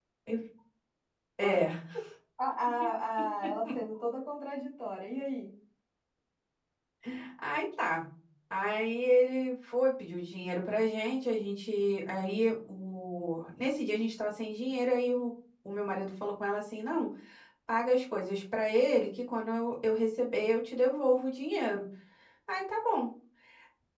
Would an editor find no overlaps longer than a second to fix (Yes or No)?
Yes